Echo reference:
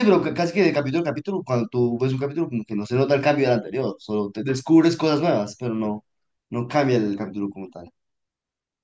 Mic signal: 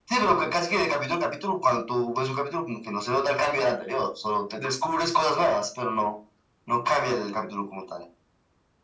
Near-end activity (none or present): none